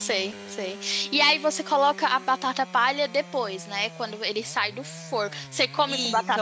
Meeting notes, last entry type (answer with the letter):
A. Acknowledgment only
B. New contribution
B